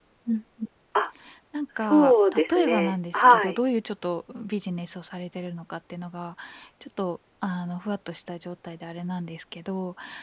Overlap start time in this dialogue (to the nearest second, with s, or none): 2 s